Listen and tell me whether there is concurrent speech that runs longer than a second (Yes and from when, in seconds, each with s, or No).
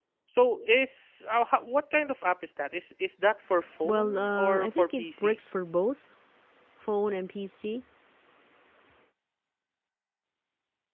Yes, from 3.8 s